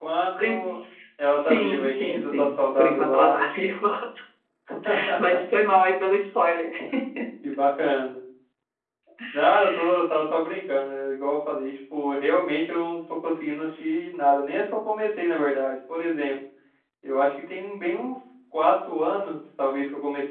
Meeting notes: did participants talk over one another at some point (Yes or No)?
Yes